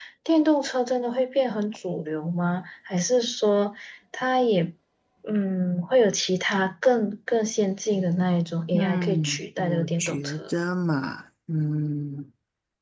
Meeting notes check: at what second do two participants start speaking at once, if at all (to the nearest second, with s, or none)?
9 s